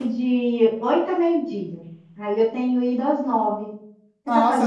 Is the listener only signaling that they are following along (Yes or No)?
No